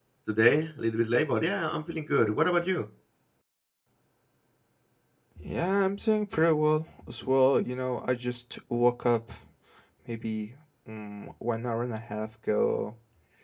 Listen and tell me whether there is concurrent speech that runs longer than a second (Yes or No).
No